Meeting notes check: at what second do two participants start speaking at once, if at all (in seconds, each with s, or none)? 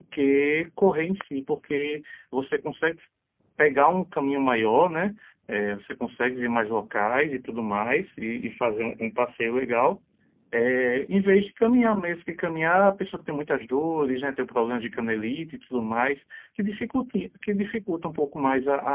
none